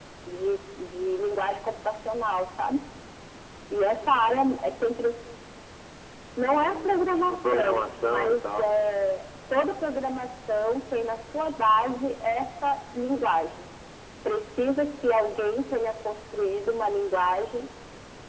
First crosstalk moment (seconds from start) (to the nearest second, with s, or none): 7 s